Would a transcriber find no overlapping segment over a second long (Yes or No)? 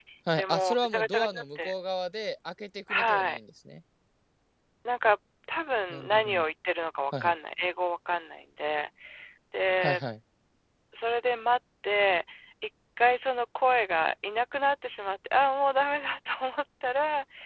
No